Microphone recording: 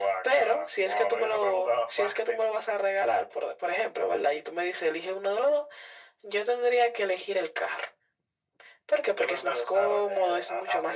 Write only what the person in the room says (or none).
none